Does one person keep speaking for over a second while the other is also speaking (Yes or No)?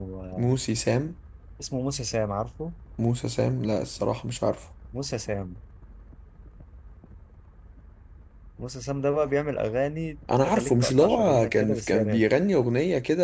Yes